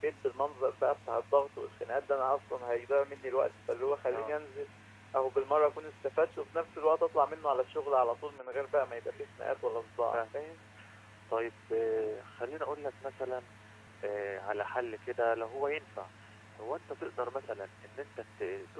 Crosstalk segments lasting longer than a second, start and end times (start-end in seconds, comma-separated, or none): none